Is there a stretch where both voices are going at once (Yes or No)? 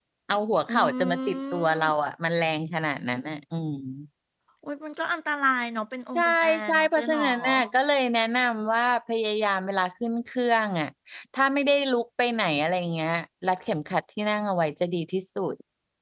Yes